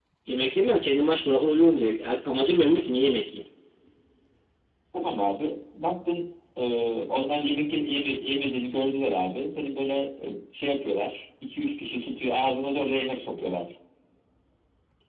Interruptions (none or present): none